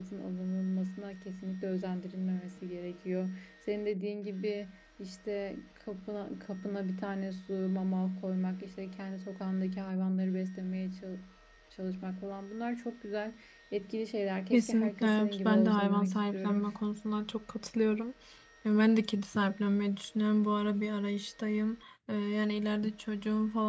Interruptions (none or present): present